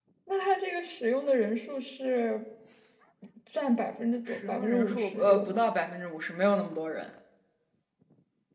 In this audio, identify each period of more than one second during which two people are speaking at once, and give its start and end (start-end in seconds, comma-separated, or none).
4.3-5.6